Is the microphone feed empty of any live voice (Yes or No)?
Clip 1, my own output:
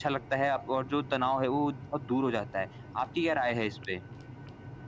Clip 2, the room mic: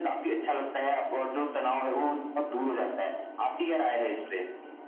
Yes